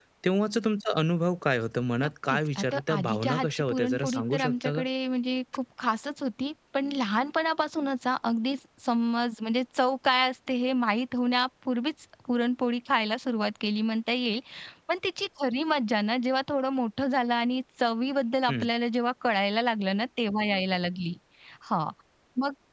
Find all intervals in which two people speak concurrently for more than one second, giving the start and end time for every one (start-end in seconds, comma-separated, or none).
2.0-4.8